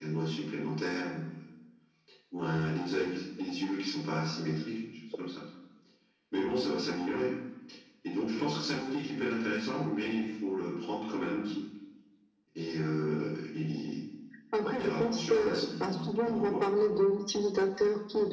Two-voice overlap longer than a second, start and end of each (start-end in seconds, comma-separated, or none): 14.8-16.6